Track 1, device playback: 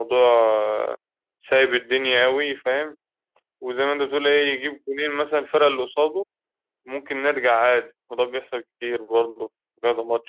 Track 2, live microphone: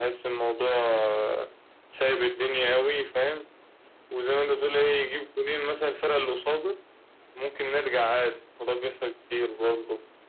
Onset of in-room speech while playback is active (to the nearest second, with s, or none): none